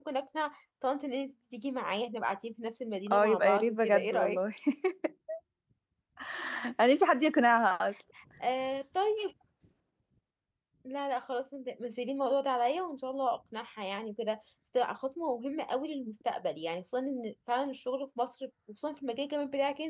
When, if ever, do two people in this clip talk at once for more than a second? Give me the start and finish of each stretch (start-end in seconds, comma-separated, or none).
3.1-4.4